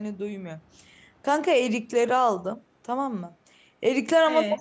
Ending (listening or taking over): listening